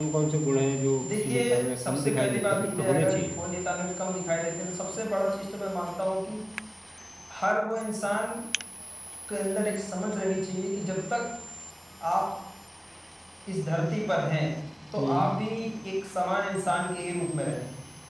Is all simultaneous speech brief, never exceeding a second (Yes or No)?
No